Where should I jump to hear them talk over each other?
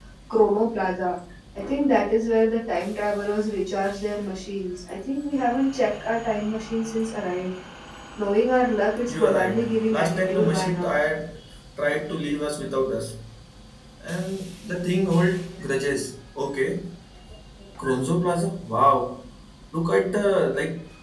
9.1 s

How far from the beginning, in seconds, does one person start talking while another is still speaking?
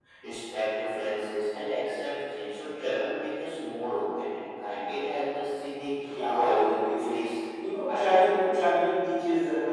6.0 s

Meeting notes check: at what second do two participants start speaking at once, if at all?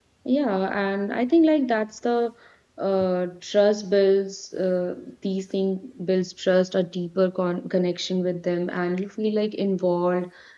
none

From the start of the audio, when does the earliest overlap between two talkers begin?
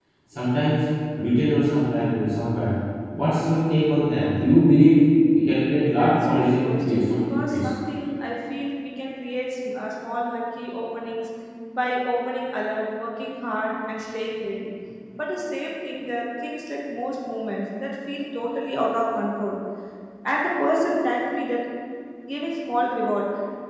5.8 s

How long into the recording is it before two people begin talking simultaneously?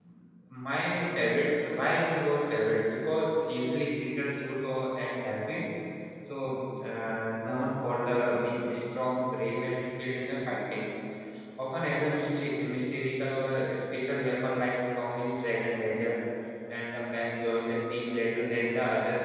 none

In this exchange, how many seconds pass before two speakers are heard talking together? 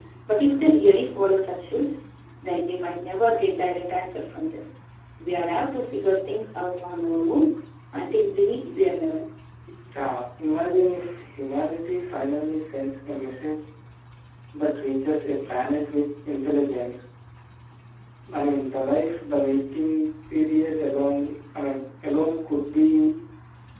none

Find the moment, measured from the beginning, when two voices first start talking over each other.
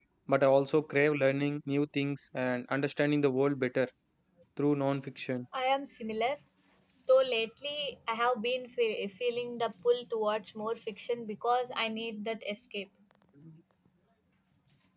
none

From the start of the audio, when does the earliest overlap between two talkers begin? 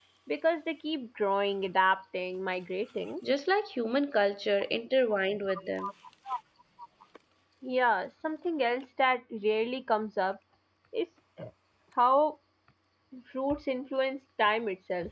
none

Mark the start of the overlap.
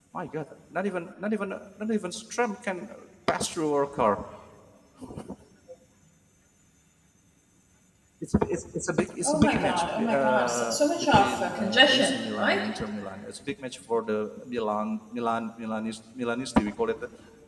9.2 s

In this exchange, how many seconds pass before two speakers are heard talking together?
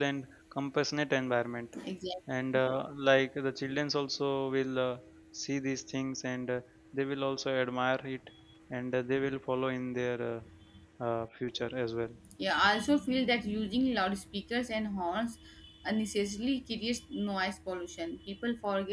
none

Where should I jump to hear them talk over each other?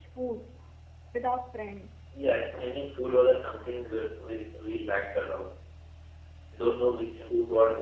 none

